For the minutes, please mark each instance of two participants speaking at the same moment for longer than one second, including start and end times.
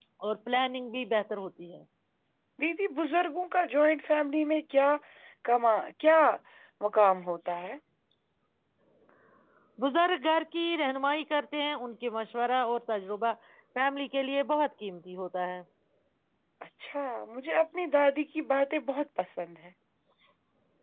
none

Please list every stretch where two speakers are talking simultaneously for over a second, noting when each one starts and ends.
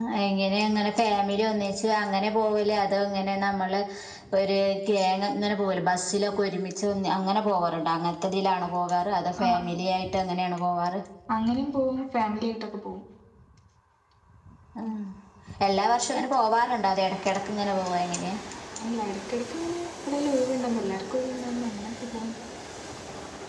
none

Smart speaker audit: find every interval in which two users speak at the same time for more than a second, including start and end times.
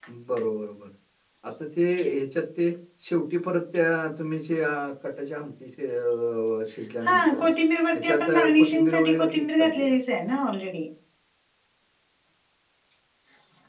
7.9-9.9

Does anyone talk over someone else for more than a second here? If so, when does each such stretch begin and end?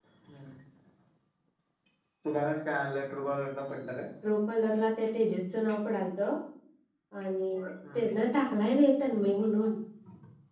none

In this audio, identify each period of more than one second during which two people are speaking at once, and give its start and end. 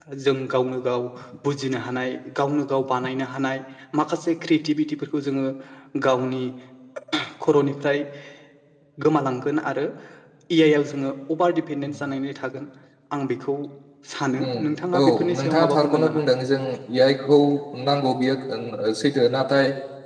15.0-16.2

